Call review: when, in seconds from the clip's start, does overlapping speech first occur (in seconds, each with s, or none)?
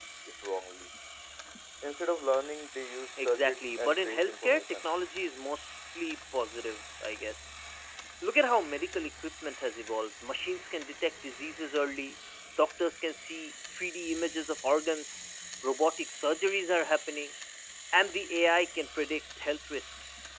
3.2 s